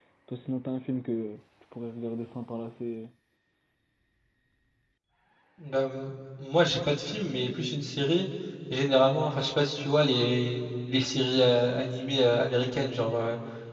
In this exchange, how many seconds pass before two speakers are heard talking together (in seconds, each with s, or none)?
none